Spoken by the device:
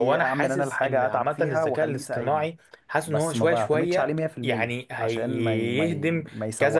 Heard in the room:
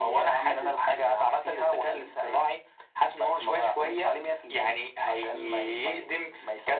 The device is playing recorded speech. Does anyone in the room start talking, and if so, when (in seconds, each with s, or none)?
none